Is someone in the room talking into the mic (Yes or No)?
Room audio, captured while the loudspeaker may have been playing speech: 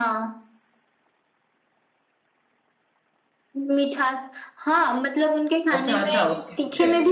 Yes